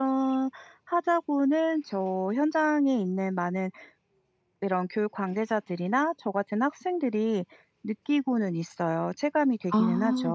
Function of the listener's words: taking over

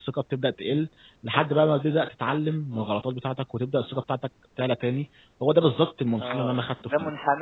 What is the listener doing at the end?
taking over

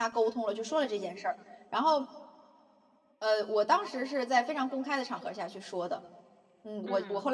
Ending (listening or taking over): listening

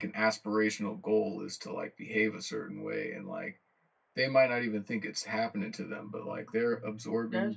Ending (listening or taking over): taking over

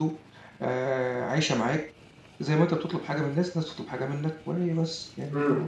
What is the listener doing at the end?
taking over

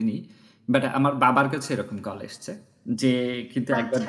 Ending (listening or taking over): listening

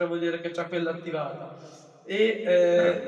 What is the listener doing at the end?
listening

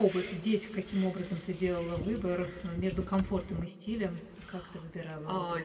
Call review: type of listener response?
taking over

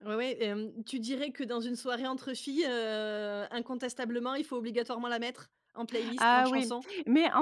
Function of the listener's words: taking over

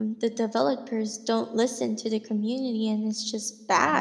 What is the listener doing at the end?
taking over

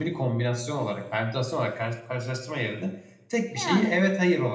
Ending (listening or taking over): listening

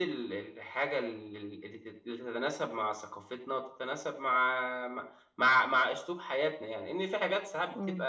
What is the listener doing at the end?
listening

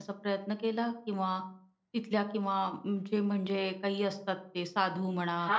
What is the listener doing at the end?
taking over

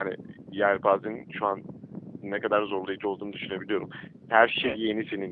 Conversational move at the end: listening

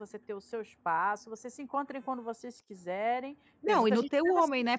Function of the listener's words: taking over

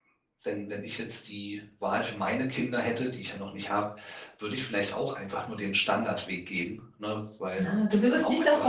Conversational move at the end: taking over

